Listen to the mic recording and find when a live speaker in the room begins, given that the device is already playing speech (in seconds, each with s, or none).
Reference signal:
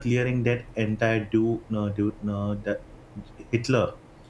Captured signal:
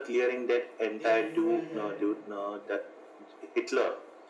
0.9 s